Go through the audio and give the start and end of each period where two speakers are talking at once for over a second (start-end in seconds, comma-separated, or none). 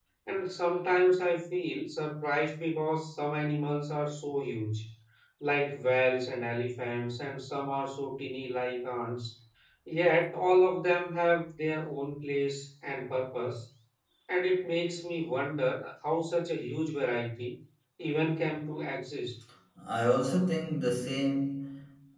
none